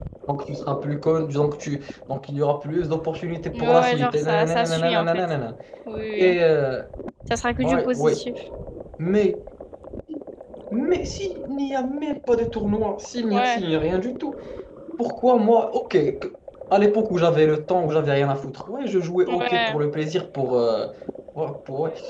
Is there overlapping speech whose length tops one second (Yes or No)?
Yes